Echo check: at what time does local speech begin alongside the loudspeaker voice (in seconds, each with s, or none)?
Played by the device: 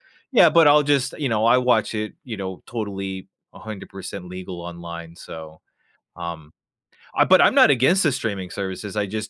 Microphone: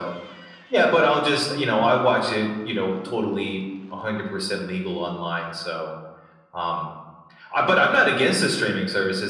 none